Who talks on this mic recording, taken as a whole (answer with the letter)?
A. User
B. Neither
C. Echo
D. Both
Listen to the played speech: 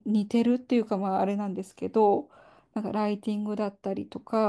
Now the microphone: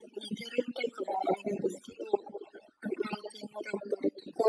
C